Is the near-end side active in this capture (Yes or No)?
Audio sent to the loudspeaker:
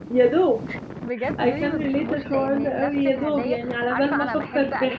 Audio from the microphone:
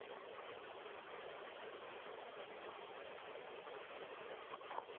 No